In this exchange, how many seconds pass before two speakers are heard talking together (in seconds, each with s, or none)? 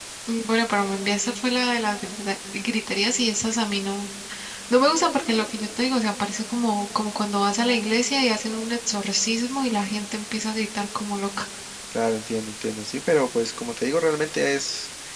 none